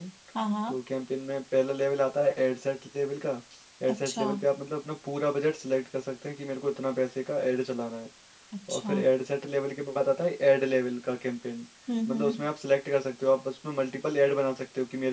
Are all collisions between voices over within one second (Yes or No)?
Yes